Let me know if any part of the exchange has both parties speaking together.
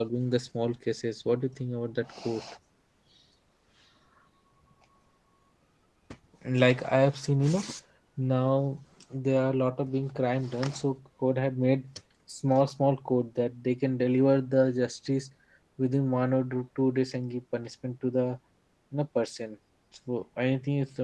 No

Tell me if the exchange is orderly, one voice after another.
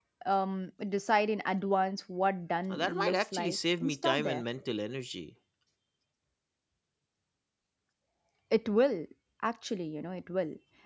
No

